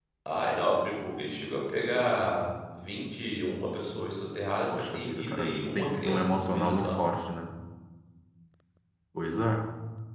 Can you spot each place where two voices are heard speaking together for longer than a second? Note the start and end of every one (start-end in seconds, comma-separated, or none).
4.7-7.0